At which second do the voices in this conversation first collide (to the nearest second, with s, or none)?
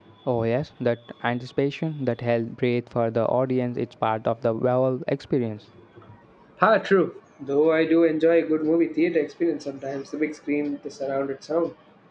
none